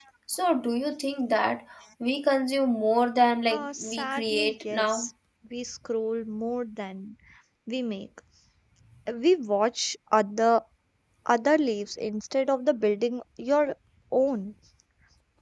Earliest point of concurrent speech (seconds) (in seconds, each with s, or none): 3.5 s